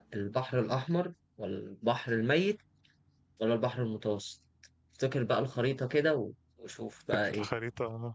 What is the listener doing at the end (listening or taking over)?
taking over